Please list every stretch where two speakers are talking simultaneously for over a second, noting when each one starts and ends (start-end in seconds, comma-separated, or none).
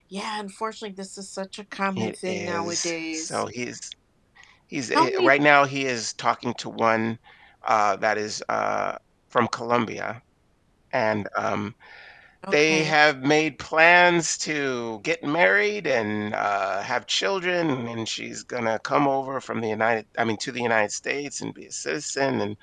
2.0-3.4